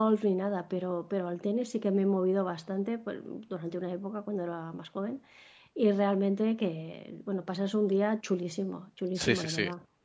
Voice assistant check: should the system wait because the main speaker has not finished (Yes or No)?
No